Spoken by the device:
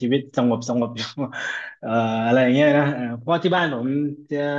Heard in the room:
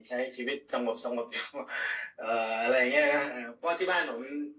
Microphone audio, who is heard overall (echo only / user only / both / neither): echo only